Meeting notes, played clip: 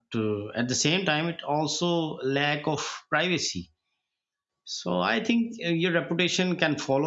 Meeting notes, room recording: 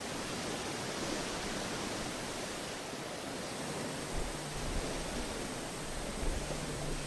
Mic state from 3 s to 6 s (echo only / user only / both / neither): neither